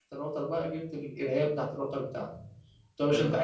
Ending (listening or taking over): listening